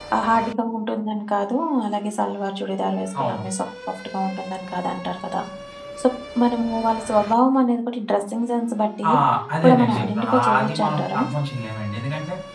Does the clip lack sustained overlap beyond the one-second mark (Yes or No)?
No